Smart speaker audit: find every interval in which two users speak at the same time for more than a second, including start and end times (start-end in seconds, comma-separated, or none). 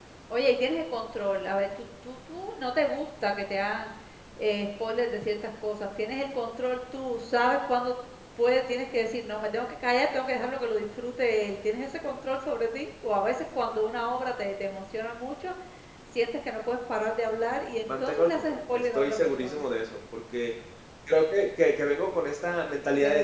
18.0-19.6